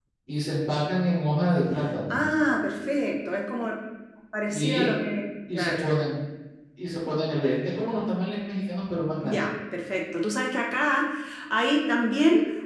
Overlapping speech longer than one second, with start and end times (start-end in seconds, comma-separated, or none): none